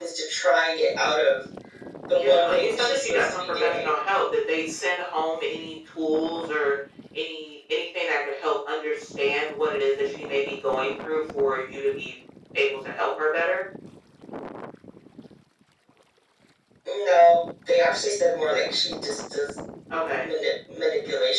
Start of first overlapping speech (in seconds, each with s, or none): 2.1 s